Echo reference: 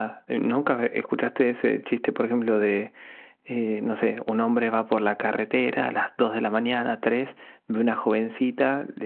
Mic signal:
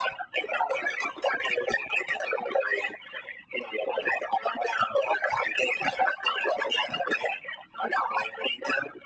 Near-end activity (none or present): none